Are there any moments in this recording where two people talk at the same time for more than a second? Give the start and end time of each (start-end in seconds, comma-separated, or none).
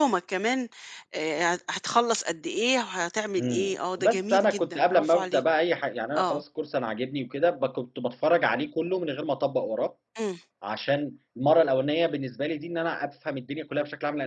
3.4-5.4